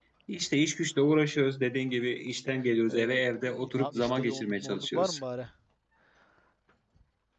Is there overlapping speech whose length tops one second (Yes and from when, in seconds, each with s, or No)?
Yes, from 2.9 s